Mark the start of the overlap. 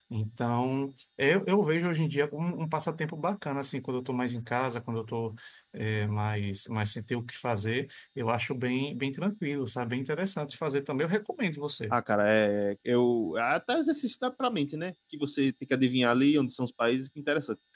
none

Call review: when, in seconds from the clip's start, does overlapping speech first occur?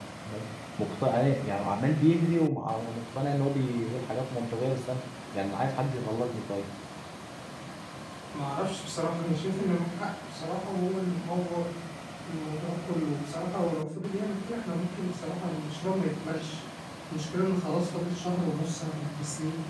none

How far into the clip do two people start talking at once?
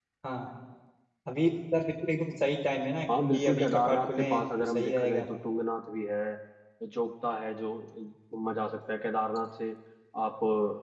3.1 s

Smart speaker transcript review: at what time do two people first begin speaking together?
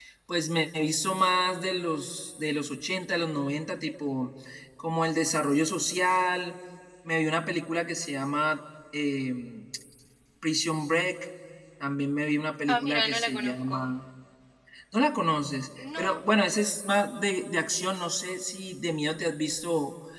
12.7 s

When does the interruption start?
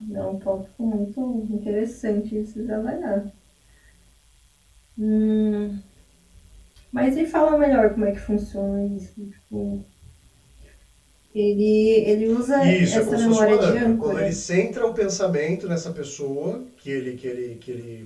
12.6 s

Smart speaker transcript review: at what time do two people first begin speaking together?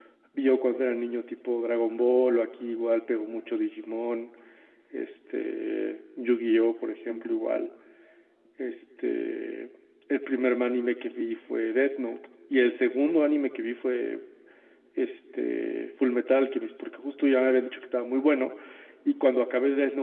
none

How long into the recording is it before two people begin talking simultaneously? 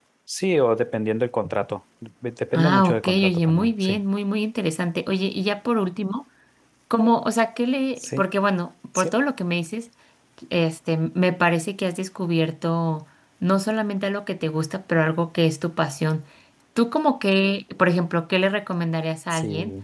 2.5 s

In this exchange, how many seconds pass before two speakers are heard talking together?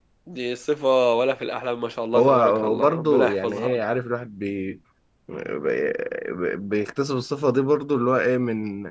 2.1 s

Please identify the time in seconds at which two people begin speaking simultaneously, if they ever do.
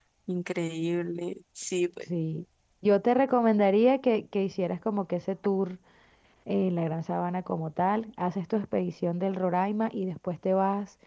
none

